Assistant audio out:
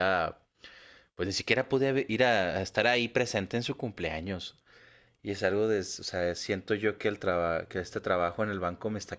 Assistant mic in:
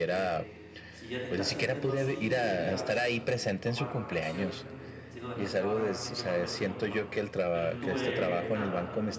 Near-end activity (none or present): present